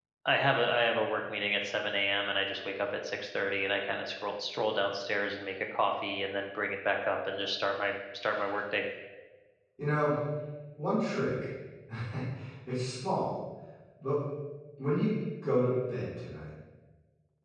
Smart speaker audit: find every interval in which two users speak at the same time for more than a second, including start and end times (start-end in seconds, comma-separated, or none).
none